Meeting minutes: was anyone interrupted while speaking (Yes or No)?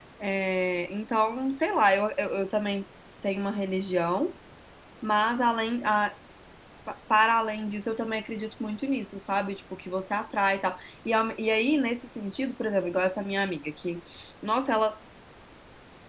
No